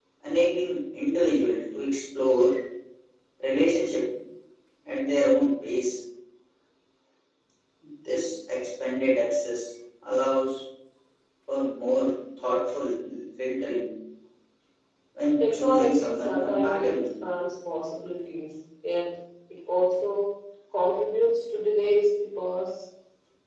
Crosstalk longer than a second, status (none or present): present